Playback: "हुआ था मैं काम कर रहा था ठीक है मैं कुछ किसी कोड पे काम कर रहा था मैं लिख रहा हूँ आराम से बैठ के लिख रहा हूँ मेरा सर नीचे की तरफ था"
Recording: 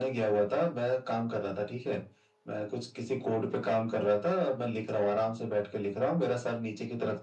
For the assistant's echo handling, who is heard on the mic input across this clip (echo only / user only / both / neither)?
echo only